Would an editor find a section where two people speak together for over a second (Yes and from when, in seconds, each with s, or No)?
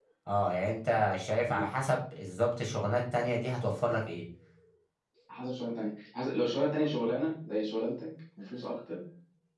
No